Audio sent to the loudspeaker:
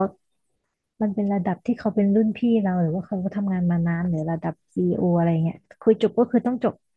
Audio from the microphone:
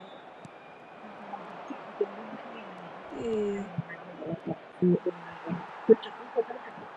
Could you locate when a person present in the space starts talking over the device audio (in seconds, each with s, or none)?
3.2 s